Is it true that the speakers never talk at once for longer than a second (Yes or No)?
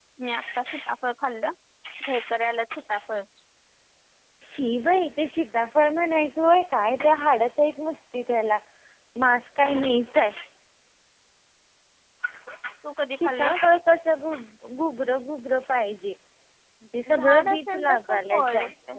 No